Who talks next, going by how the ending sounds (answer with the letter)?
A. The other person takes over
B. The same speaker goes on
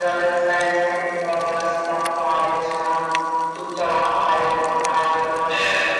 A